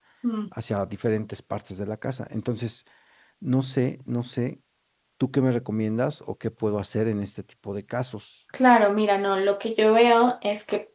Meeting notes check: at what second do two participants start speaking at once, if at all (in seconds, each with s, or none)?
none